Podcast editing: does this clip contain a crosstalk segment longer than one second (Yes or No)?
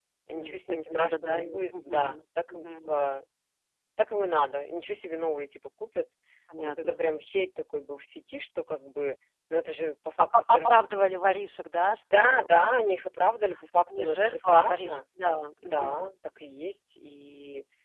Yes